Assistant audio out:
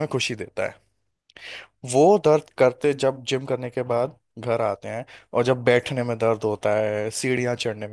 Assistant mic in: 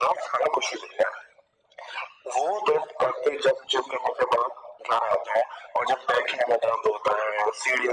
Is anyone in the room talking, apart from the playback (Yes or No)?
No